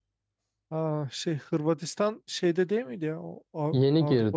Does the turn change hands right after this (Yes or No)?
Yes